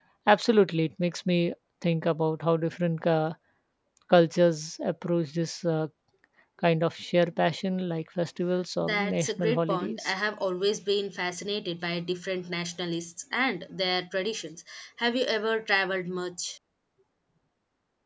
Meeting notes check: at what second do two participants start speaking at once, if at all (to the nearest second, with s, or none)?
9 s